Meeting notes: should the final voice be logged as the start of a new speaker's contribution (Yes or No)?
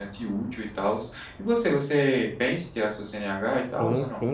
Yes